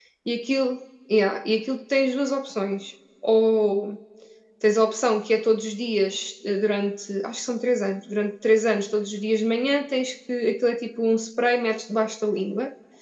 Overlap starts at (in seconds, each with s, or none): none